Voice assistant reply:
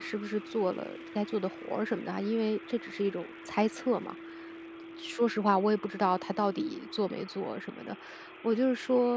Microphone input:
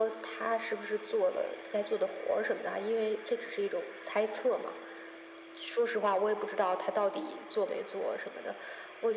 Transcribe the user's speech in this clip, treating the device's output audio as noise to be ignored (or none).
none